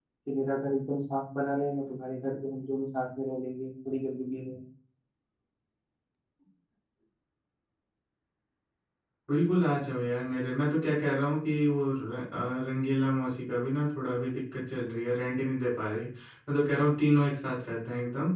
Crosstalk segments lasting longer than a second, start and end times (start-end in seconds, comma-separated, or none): none